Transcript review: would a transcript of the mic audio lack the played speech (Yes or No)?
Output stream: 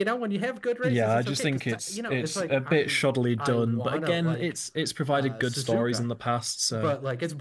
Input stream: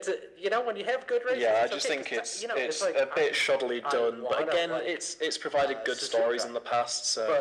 No